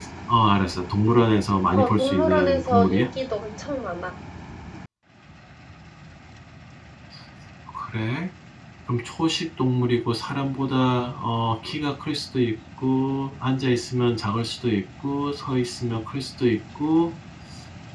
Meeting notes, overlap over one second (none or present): present